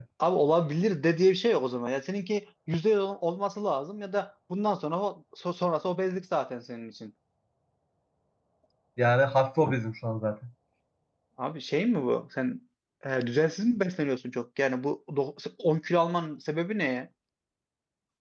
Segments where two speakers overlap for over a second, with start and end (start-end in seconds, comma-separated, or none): none